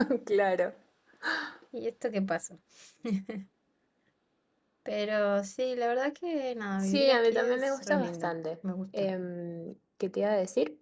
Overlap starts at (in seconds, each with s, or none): 6.8 s